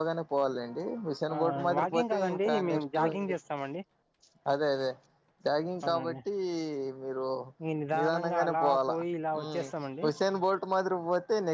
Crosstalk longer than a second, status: present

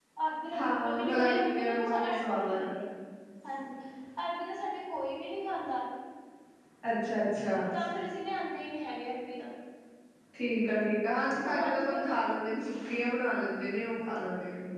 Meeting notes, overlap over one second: present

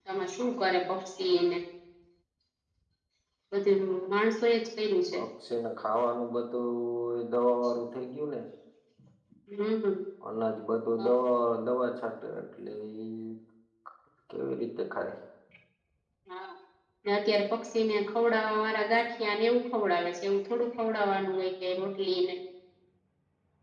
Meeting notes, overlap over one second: none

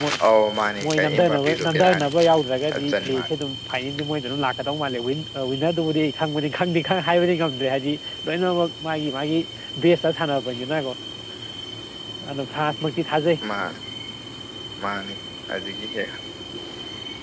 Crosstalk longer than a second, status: present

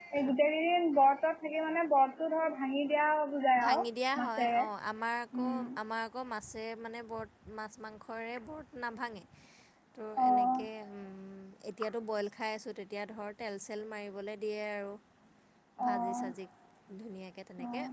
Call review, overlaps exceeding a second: none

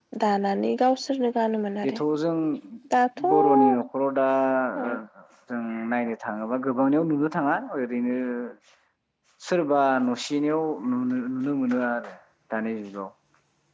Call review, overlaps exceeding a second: none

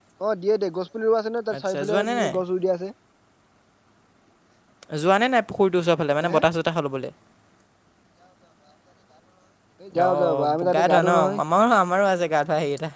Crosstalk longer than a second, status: present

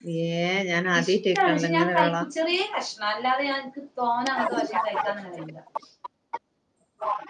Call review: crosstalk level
present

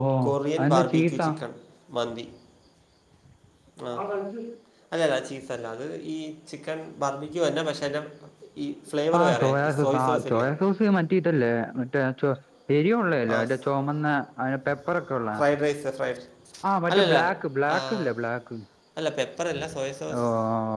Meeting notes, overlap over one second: present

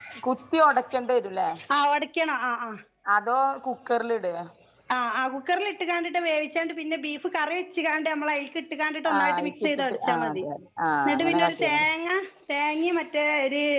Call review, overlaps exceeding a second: present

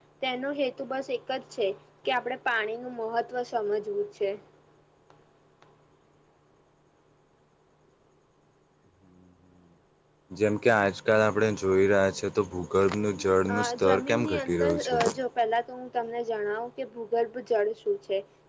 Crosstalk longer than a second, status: present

